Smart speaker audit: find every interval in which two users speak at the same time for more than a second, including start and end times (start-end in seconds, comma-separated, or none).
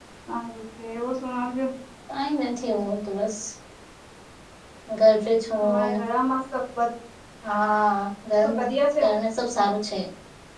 none